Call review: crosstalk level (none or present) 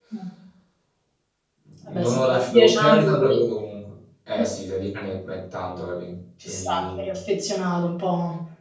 present